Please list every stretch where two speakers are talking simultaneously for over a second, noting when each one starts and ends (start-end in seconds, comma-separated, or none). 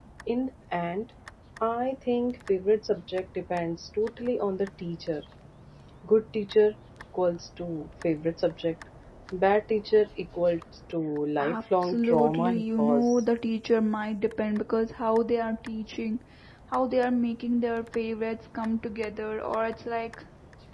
11.4-13.2